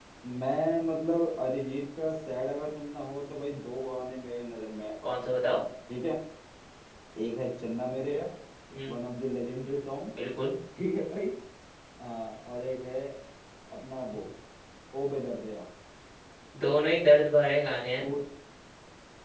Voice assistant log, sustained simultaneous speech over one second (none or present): none